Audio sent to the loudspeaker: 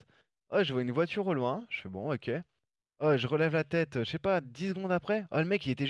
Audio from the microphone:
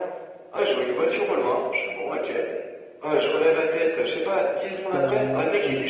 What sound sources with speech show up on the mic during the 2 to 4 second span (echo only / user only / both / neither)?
echo only